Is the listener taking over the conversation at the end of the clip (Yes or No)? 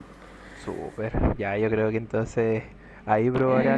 No